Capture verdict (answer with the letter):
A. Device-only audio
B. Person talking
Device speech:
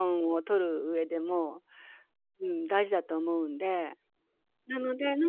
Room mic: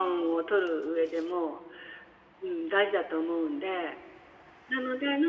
A